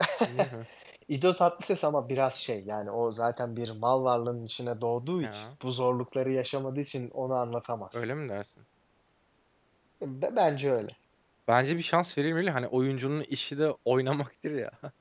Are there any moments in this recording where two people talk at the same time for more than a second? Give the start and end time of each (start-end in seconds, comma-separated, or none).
none